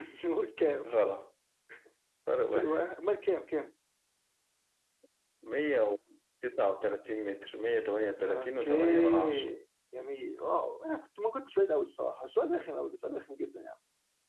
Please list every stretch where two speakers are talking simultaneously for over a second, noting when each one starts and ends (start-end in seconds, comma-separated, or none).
8.2-9.5